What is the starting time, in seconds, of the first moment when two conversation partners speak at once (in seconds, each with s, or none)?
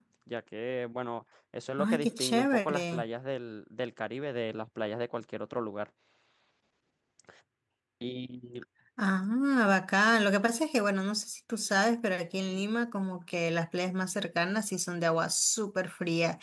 1.8 s